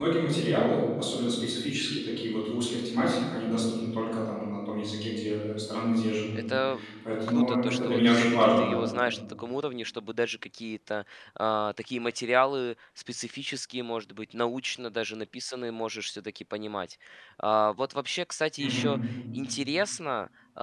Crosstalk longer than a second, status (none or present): present